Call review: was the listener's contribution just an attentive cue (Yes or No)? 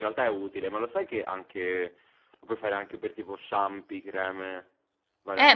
No